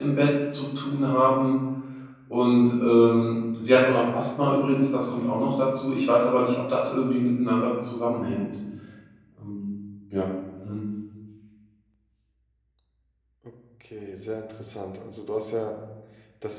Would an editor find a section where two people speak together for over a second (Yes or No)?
No